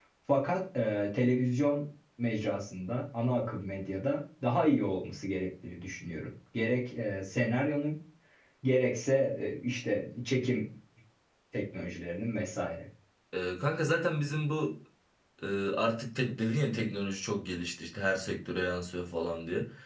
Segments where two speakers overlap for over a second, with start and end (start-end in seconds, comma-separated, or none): none